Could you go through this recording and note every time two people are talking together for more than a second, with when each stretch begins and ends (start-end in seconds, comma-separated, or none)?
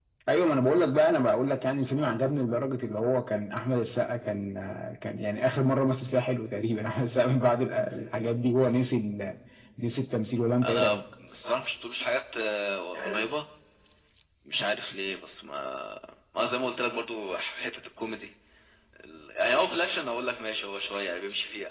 none